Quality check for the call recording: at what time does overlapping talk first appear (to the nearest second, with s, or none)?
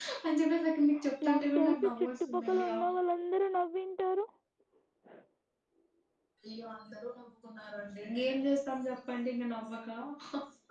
1 s